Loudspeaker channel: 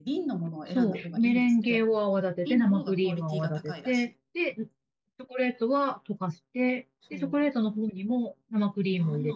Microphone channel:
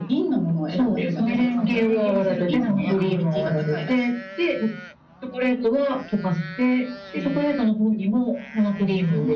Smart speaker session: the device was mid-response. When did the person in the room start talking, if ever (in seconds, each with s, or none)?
0.7 s